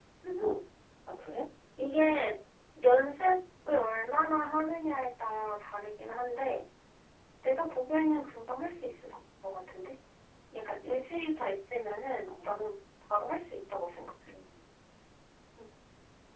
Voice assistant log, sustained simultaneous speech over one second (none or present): none